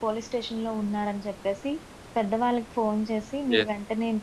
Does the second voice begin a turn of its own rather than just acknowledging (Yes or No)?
No